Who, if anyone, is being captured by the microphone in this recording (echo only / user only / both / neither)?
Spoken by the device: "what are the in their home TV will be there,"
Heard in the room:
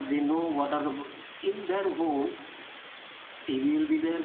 echo only